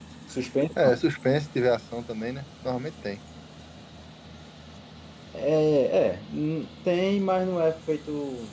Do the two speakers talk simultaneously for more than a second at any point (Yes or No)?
No